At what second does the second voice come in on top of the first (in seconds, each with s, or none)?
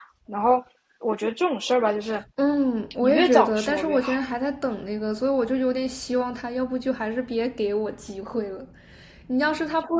3.0 s